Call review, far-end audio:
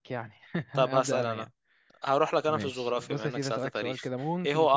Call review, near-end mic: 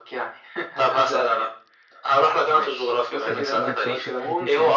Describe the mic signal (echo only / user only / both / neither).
both